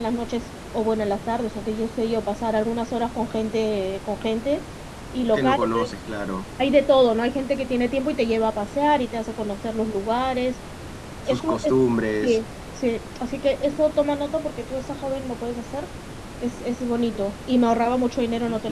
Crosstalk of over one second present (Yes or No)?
No